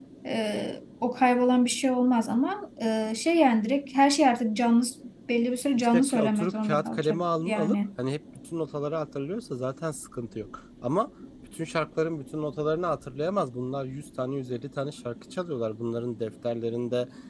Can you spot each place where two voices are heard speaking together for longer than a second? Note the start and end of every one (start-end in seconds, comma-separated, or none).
5.8-7.8